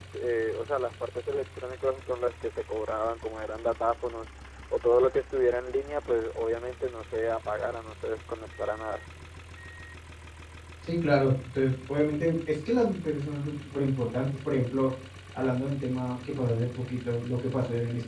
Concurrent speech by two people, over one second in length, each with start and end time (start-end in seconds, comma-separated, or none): none